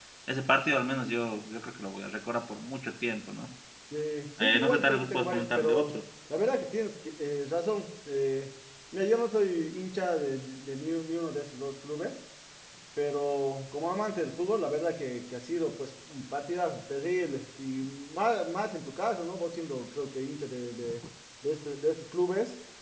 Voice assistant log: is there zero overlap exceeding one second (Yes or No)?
No